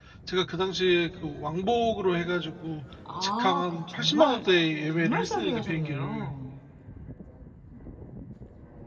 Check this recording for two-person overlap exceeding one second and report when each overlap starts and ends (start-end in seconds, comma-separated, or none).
3.2-4.4, 4.9-6.3